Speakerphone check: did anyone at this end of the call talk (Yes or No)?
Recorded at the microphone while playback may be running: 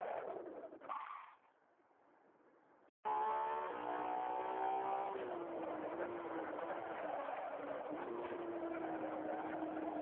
No